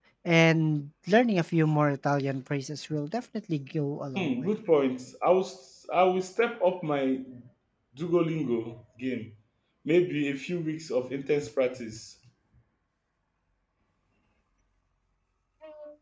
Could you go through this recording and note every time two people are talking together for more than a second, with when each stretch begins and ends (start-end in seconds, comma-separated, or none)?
none